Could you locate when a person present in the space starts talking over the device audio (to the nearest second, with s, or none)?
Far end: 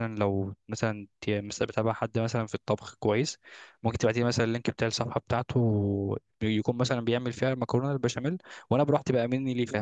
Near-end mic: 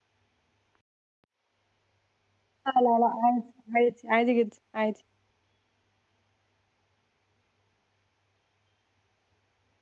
3 s